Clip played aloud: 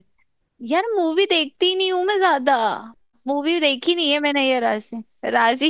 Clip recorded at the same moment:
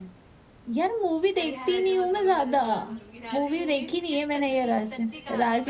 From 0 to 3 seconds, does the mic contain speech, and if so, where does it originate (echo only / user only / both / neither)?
both